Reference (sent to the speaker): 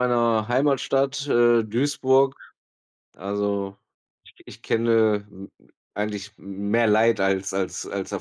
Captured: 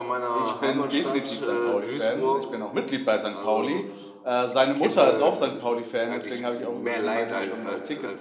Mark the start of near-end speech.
0 s

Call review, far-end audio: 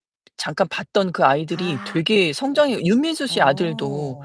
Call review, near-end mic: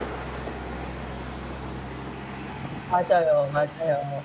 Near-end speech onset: 3 s

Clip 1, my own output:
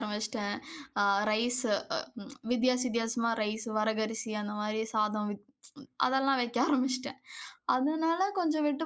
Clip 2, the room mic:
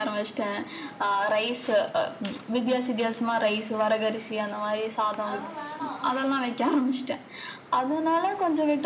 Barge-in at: 5 s

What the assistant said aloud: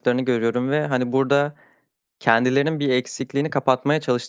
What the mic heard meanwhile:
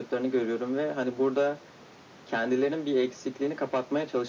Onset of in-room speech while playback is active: none

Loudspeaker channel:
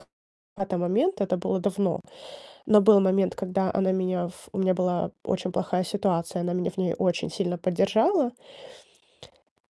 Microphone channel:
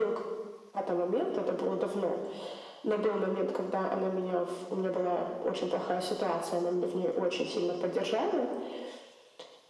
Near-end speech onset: none

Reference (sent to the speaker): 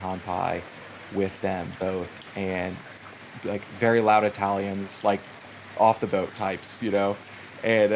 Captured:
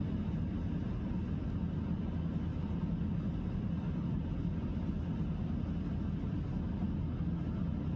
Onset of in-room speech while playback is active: none

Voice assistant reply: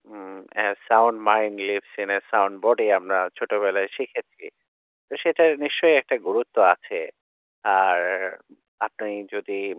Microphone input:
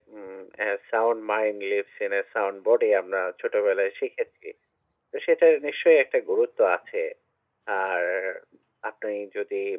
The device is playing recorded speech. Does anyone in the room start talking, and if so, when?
none

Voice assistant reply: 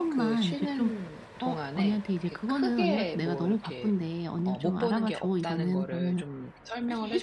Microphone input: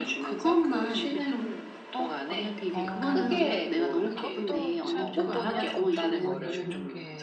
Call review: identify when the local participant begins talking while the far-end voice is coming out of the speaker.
3 s

